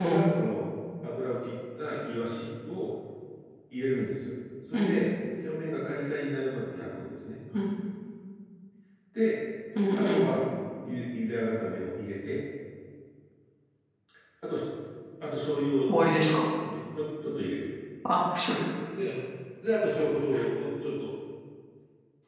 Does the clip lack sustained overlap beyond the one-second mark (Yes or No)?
Yes